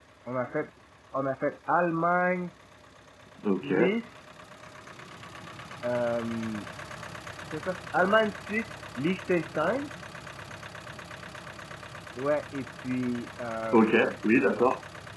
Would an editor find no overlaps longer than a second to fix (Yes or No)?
Yes